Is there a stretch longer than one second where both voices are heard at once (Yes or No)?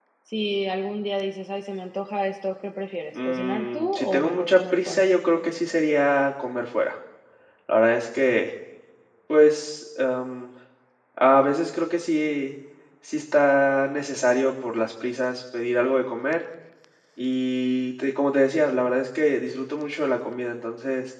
Yes